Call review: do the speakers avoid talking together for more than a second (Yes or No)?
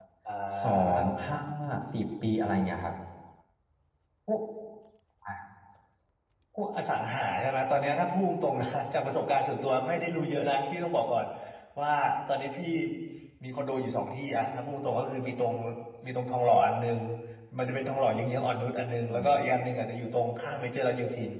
Yes